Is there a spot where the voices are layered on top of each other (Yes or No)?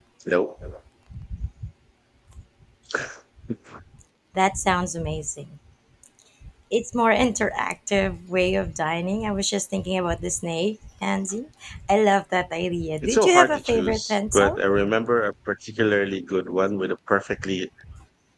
Yes